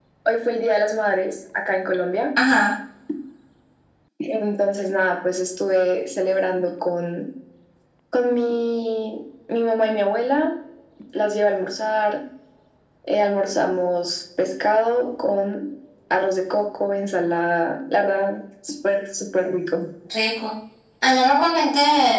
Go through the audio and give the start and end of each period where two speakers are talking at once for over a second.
none

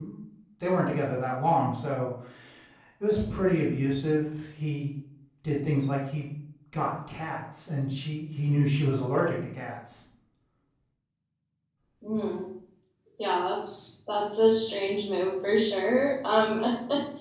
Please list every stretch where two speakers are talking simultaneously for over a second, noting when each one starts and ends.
none

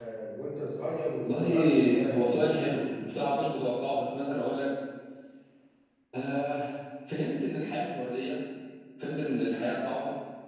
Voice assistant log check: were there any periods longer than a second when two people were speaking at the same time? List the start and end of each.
1.2-2.6

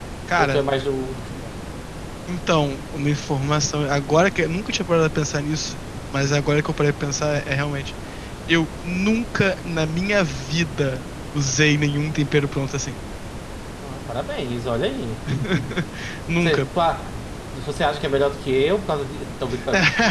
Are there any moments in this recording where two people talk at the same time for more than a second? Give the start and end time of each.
none

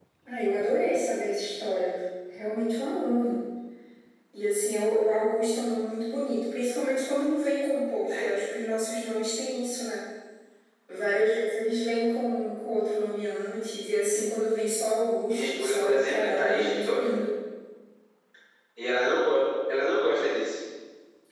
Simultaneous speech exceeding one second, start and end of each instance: 15.3-17.1

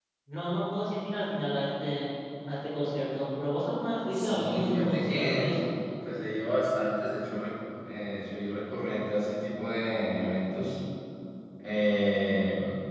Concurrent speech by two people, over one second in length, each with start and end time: 4.1-5.6

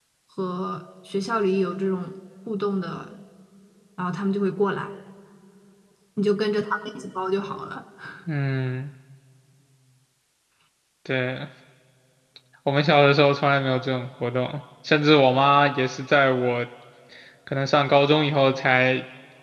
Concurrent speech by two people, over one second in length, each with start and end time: none

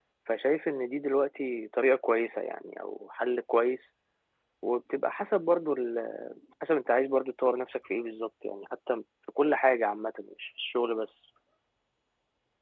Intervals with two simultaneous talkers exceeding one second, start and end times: none

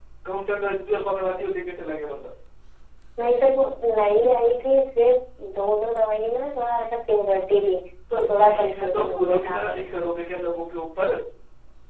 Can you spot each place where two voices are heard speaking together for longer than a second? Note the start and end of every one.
8.2-9.8

